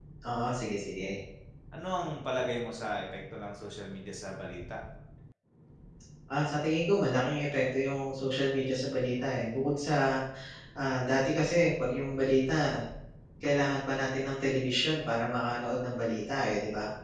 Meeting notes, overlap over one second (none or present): none